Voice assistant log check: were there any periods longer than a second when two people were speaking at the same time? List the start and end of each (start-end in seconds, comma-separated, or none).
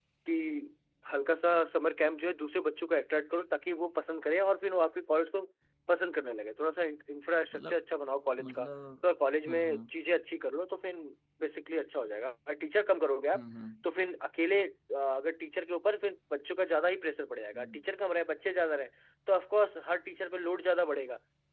none